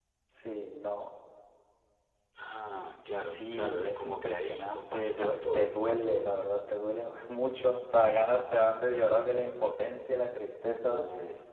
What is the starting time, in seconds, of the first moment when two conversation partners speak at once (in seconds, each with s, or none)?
3.2 s